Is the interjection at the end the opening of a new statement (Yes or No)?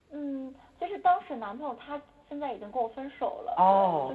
Yes